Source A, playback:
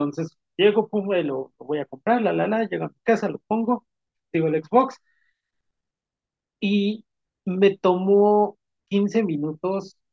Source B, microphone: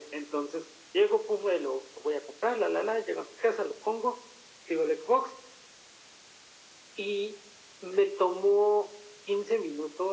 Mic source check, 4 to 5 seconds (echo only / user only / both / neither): echo only